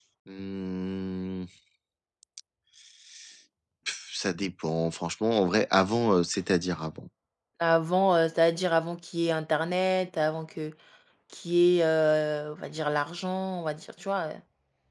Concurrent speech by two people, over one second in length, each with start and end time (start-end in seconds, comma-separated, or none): none